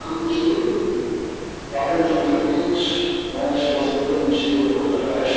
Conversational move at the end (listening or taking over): listening